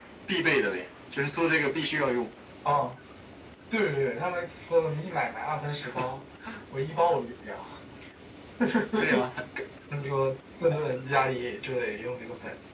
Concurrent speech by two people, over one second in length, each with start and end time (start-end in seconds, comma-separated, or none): none